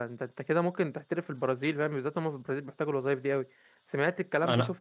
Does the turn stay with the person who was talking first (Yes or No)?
No